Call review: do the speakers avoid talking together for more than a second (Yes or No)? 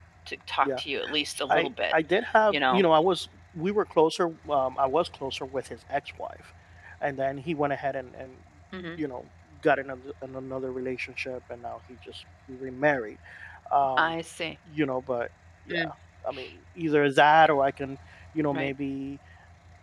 Yes